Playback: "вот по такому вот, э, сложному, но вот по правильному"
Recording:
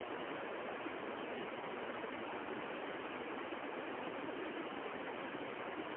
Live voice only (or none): none